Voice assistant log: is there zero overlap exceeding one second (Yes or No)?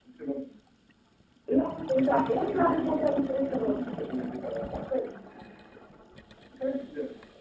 No